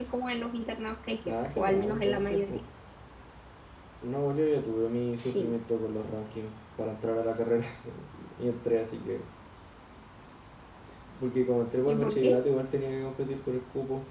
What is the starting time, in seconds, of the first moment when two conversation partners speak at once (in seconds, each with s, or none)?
1.2 s